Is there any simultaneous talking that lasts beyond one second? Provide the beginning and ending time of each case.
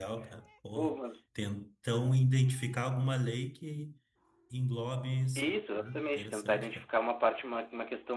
5.4-6.8

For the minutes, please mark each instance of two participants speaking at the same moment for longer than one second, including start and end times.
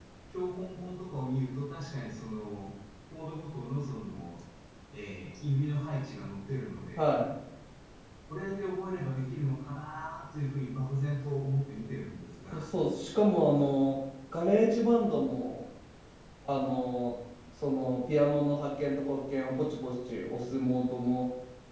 none

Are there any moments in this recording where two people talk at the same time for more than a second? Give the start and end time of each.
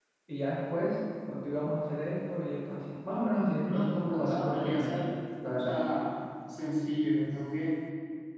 3.6-5.0

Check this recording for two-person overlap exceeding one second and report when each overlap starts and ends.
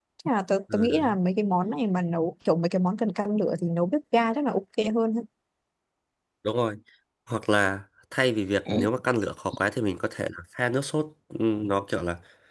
none

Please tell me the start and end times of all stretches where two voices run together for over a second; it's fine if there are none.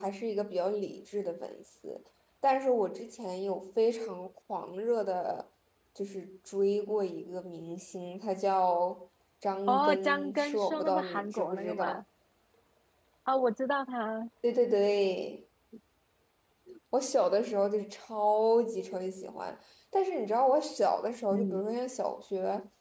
9.7-12.0

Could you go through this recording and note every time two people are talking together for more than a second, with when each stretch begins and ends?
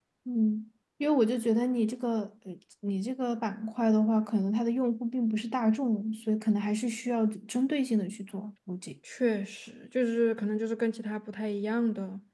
none

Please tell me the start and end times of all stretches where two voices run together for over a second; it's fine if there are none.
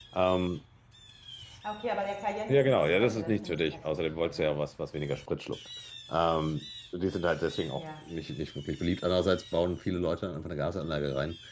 2.5-4.5

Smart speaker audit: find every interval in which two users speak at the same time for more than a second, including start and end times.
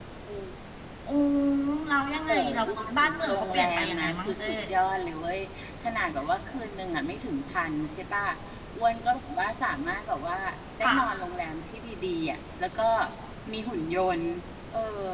2.3-4.5

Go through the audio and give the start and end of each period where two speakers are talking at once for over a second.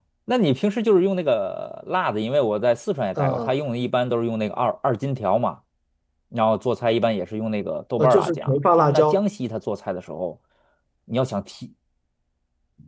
8.0-9.2

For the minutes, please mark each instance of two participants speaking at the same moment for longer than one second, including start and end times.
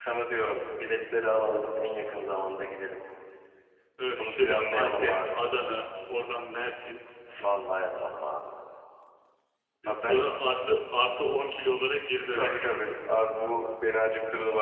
4.2-5.4

